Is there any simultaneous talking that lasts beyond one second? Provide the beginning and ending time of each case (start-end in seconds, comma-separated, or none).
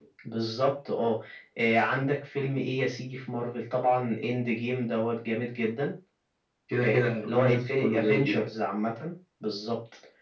6.8-8.4